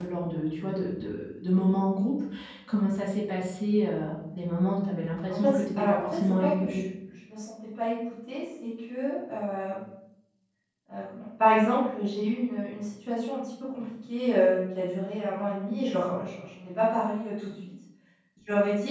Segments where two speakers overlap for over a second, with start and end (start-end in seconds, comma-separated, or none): 5.3-6.8